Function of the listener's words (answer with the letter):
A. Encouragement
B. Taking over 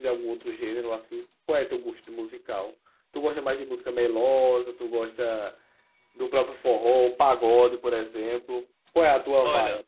B